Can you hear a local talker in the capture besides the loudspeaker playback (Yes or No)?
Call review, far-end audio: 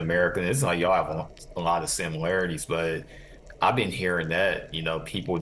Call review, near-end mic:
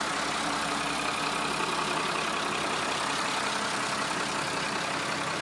No